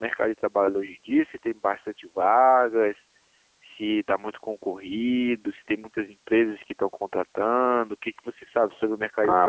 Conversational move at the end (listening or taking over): taking over